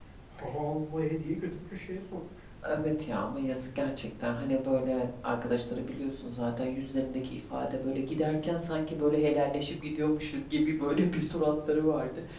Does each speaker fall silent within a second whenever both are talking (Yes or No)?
Yes